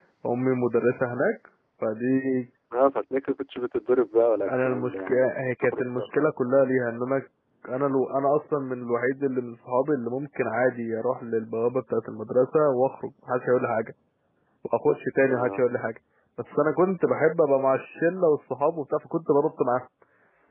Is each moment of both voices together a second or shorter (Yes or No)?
No